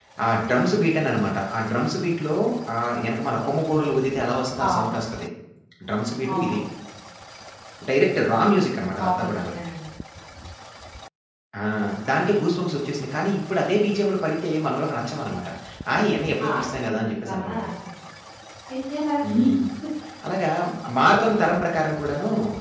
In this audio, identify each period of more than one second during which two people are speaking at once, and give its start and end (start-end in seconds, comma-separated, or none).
16.5-17.7